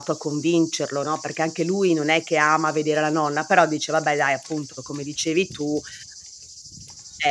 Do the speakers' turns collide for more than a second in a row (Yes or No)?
No